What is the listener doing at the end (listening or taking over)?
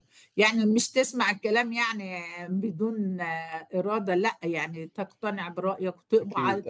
listening